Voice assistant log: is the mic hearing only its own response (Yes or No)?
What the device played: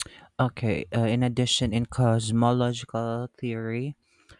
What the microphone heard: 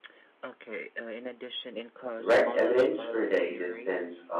No